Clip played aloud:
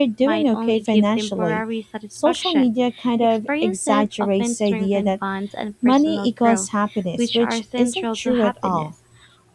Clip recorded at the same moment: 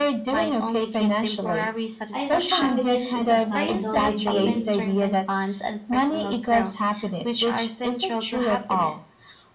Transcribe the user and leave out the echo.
I think happiness is a cycle you give,

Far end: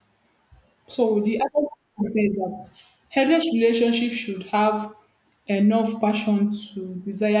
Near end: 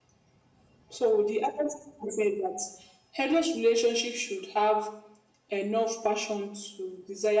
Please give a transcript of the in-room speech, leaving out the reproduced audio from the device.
none

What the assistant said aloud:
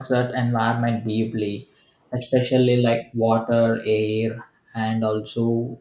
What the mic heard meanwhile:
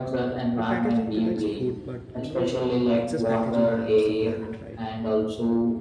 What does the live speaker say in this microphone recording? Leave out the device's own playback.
the packaging protects food, but you know, like excess packaging harms the planet, right?

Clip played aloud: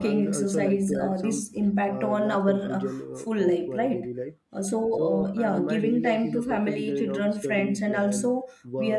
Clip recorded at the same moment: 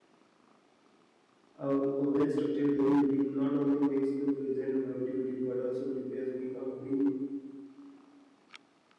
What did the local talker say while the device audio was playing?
A, a well structured daily routine not only makes the present productivity but also prepares me a bring

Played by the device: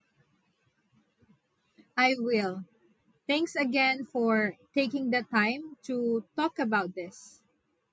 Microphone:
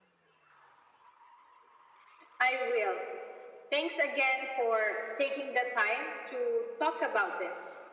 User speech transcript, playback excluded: none

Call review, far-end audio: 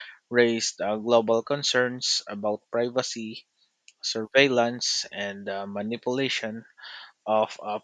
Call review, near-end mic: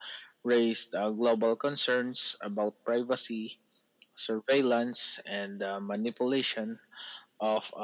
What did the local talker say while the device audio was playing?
none

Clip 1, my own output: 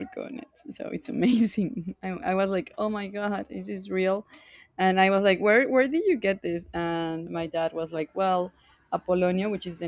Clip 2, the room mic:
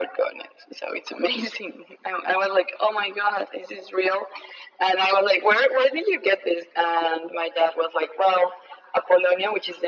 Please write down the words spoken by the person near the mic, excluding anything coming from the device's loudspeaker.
none

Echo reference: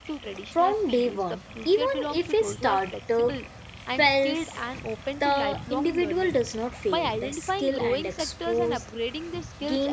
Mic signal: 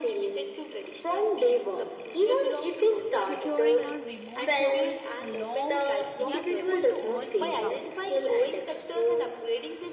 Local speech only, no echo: tutoring, or remote service allow young people to earn income

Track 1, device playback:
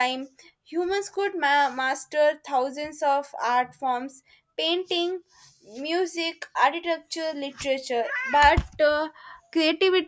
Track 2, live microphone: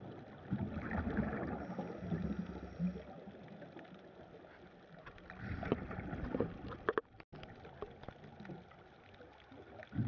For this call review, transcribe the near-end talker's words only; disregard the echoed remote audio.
none

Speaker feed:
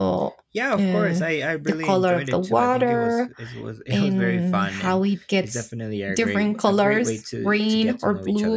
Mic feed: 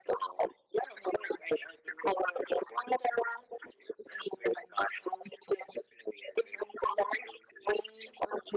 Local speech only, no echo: none

